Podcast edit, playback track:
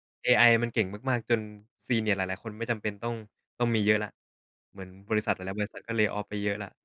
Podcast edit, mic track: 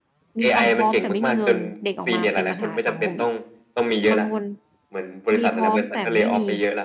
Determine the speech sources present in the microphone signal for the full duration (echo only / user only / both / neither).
both